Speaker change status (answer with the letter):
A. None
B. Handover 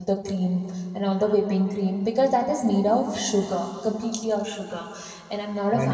B